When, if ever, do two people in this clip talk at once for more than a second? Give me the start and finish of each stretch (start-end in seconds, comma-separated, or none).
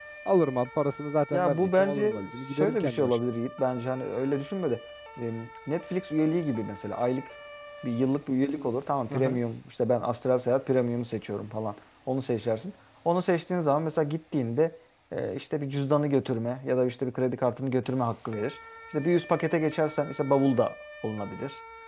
1.3-3.2